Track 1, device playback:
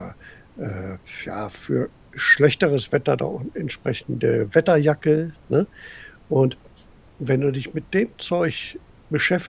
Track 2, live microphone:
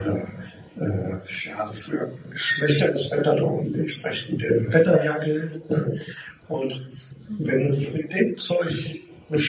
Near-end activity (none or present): present